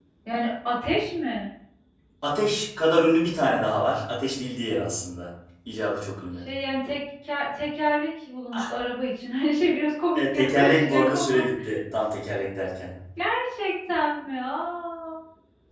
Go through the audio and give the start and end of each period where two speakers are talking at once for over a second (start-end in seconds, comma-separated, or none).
10.1-11.5